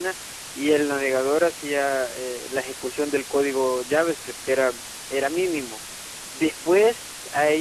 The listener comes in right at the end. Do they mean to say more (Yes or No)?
No